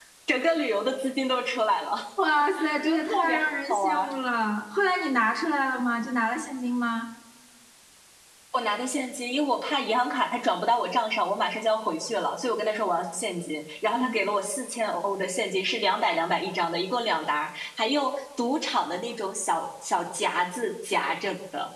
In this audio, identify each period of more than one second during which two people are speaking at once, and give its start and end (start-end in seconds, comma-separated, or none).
2.8-4.1